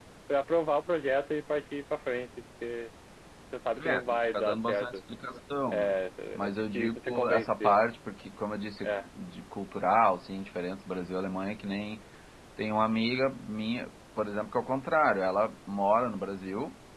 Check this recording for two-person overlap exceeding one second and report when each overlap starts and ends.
3.8-5.0, 6.4-7.8

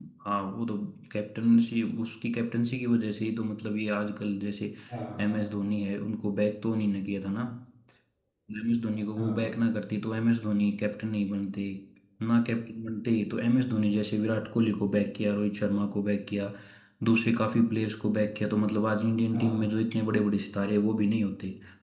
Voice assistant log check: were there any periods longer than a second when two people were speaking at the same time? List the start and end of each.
none

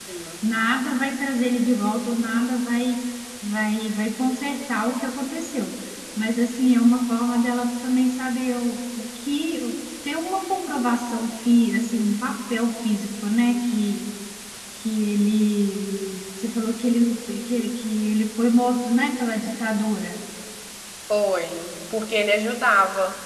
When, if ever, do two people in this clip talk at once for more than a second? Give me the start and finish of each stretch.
none

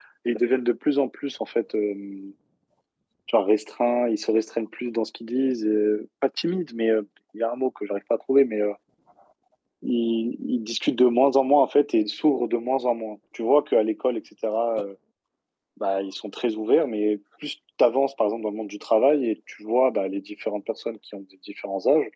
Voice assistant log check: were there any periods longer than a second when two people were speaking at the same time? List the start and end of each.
none

